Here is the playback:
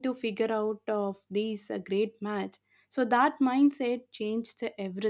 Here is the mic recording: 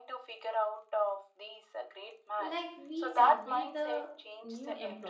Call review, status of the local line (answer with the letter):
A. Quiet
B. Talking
B